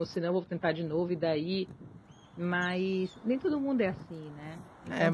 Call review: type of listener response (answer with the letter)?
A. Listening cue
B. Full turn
B